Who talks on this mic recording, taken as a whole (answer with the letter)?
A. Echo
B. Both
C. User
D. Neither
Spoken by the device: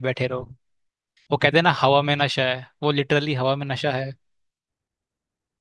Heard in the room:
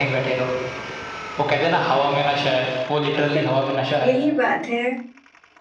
B